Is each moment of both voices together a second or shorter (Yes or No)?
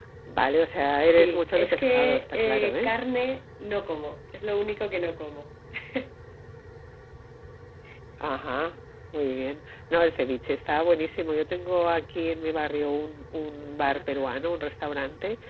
No